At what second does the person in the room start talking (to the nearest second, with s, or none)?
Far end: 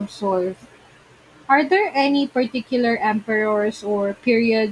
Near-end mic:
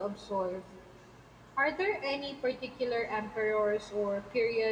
none